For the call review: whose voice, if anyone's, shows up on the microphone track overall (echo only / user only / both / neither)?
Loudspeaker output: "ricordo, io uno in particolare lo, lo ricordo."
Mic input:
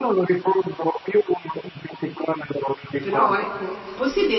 both